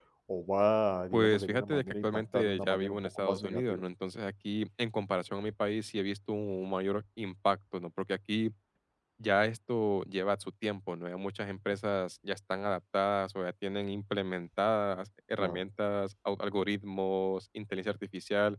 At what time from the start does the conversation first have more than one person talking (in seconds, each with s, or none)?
1.1 s